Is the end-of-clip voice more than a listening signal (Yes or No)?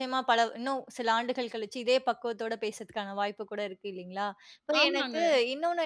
No